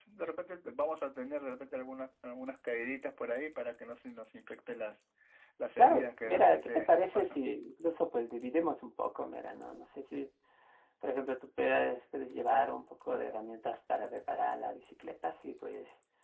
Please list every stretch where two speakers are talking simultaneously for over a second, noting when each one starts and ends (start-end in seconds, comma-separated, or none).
5.8-7.4